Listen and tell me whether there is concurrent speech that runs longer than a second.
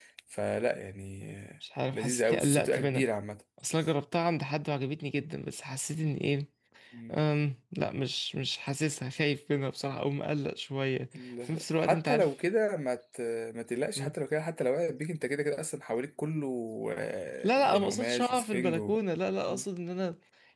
Yes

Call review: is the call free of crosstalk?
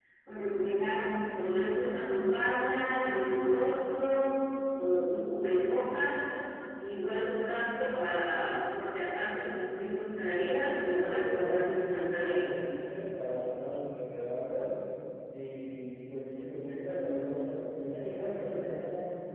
No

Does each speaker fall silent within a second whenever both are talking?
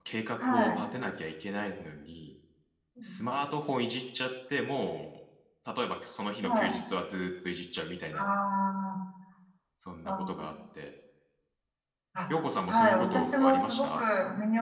No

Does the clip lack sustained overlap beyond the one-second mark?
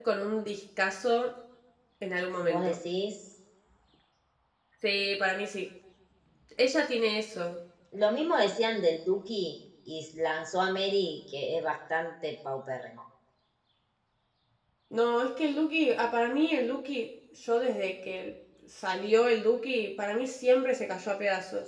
Yes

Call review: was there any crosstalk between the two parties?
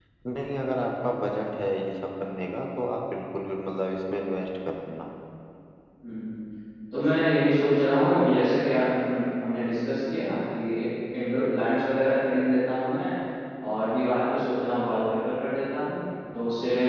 No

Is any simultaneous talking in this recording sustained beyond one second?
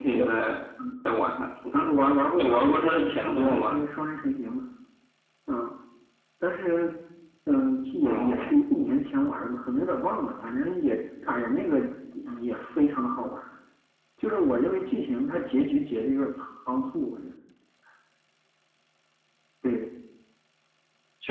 Yes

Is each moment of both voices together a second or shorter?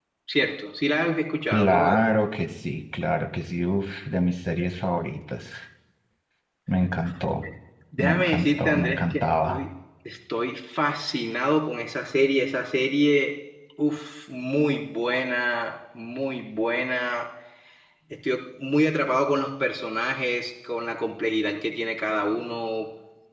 No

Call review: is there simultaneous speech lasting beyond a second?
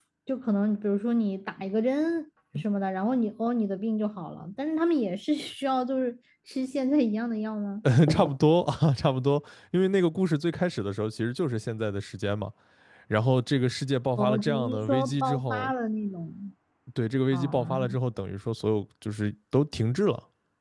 Yes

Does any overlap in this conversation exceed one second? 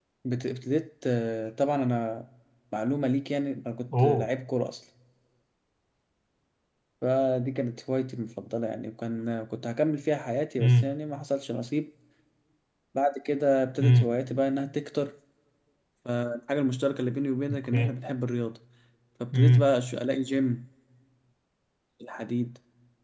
No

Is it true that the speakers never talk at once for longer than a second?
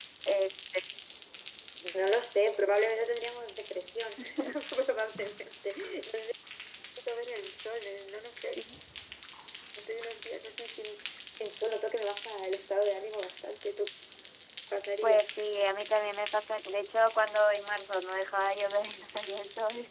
Yes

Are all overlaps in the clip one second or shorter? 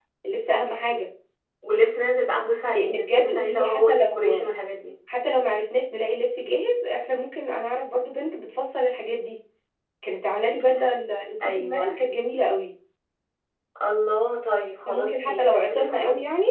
No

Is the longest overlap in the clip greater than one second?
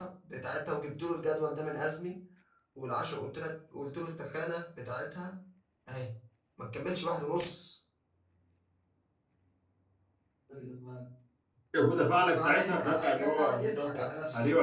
Yes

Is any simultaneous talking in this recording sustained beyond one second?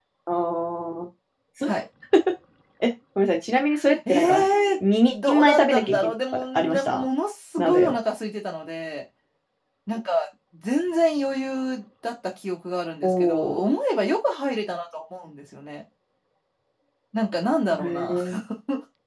Yes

